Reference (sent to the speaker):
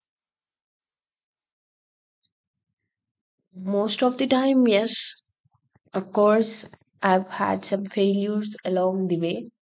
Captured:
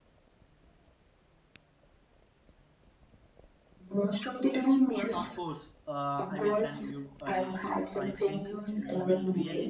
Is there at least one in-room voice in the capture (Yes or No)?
Yes